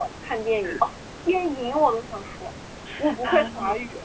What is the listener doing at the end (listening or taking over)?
listening